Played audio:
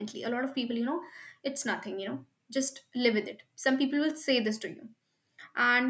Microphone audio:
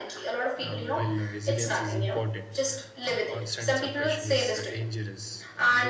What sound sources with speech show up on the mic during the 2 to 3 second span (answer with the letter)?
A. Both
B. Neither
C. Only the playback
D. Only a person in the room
A